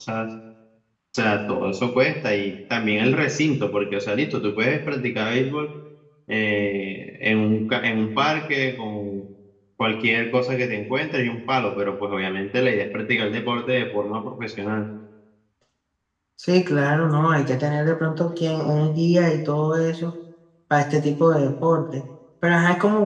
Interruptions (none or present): none